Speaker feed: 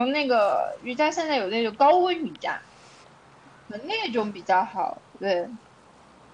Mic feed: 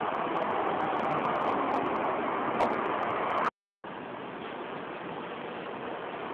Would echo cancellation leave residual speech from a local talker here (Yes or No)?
No